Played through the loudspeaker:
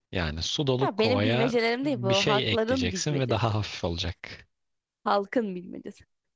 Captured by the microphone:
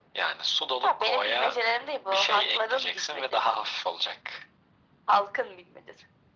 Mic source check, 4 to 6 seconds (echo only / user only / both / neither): echo only